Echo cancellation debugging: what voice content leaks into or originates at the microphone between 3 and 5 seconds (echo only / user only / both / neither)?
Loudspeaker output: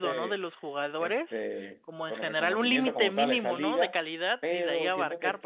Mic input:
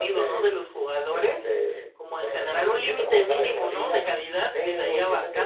echo only